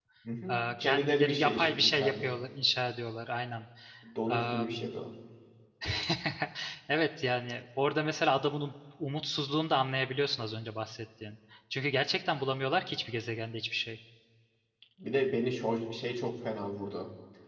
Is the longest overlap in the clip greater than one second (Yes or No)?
Yes